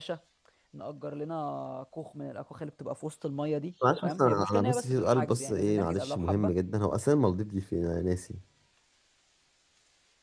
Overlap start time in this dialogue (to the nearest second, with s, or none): 4 s